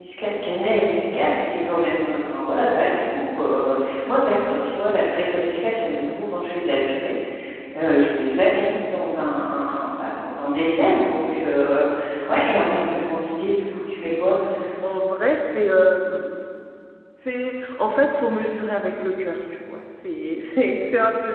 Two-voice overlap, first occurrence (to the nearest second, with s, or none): none